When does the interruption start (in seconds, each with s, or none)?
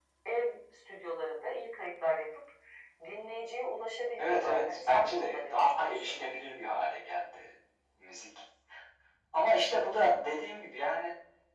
4.2 s